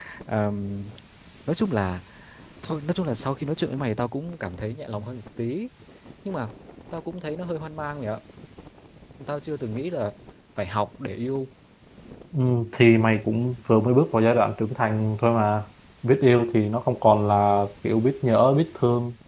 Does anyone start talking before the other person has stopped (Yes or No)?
No